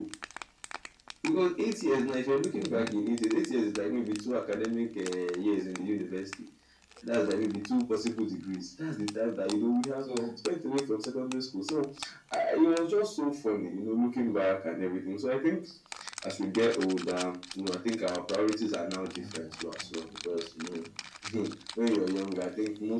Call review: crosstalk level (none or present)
present